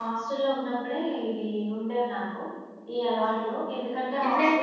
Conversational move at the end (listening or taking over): listening